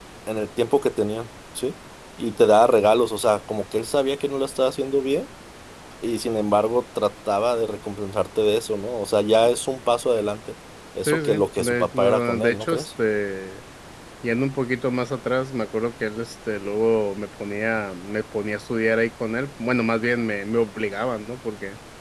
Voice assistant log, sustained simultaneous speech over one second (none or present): present